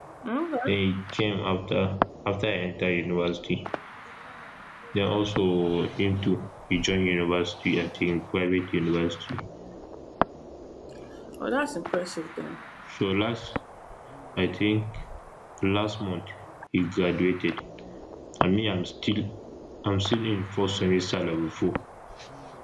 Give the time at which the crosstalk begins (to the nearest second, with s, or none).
none